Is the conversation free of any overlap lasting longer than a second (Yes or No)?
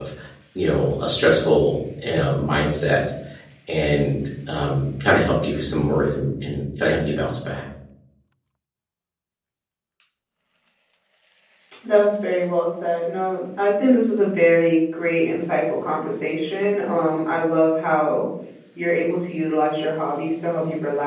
Yes